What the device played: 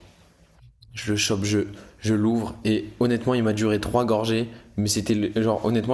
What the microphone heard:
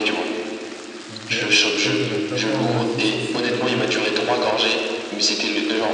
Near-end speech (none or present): present